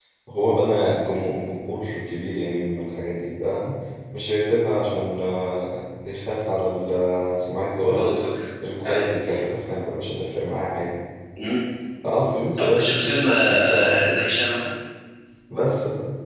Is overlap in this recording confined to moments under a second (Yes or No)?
No